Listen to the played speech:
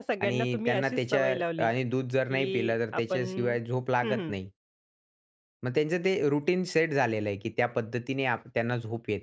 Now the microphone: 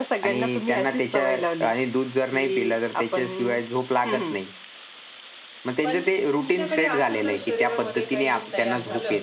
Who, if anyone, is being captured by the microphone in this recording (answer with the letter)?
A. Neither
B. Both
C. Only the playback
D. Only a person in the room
B